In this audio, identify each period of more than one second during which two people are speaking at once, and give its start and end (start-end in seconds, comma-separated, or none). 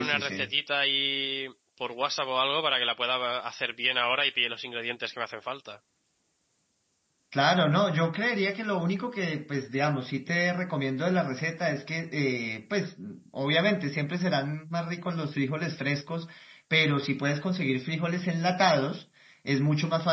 none